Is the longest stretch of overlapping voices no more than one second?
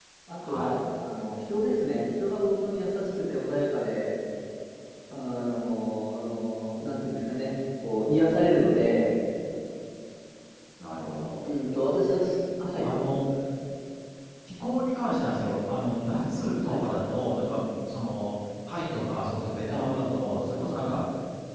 Yes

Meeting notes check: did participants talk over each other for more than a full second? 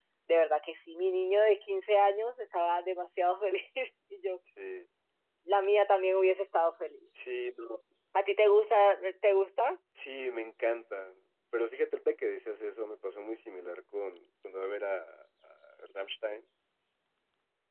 No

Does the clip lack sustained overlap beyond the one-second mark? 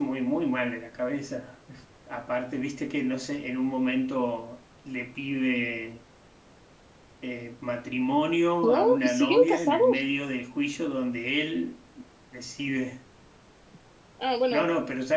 No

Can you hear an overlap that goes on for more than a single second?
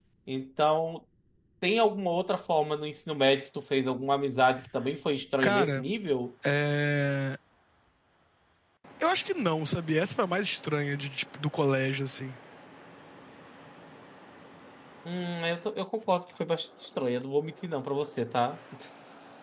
No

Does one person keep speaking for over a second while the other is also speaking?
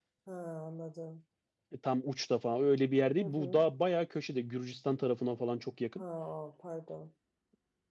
No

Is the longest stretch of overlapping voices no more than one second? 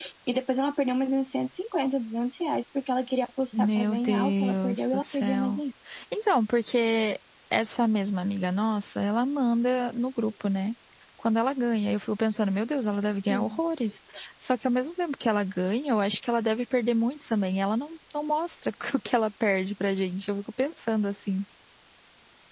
No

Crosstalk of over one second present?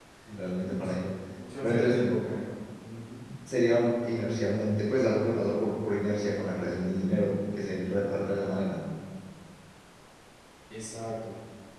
No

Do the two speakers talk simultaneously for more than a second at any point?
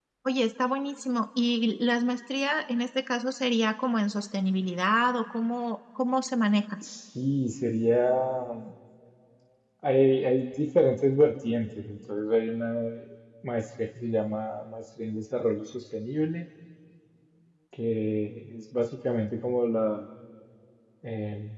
No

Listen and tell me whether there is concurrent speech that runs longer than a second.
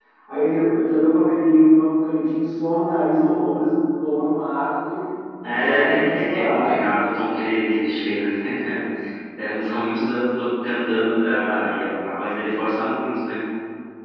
Yes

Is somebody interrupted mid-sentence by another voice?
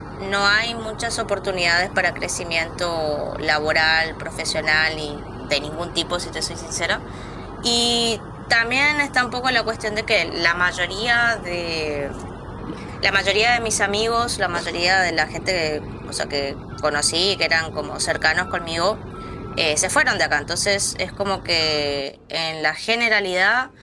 No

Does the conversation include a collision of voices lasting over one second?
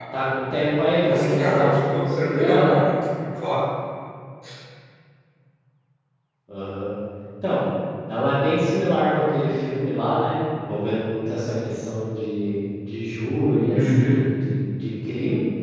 Yes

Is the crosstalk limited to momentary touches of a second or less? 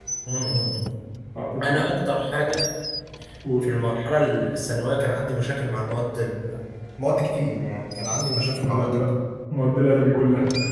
Yes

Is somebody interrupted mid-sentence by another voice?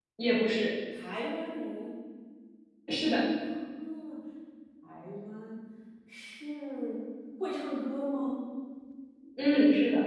No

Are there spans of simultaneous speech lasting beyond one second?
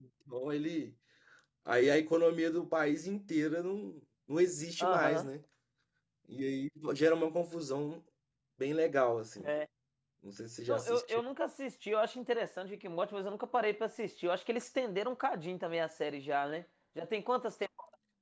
No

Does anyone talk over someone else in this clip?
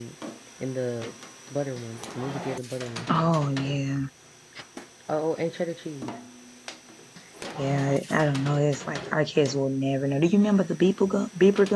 No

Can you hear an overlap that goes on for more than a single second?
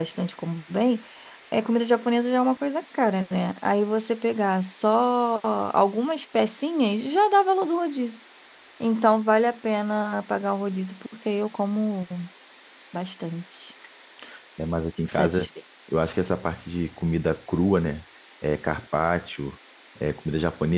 No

